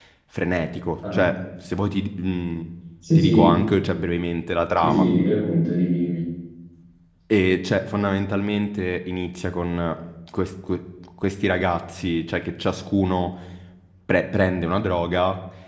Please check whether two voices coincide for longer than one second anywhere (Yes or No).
No